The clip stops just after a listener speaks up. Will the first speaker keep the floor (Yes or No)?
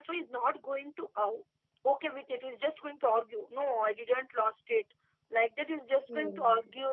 Yes